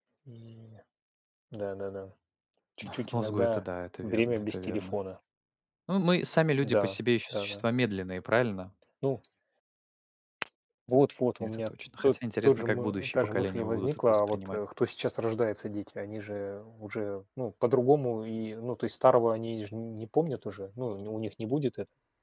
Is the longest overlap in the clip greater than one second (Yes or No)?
Yes